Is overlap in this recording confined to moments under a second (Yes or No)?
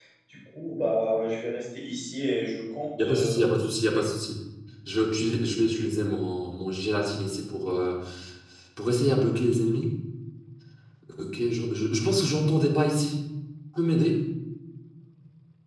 Yes